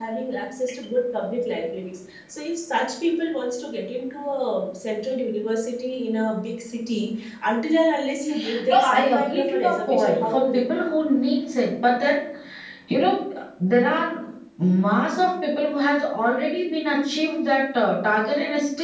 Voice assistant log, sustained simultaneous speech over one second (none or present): present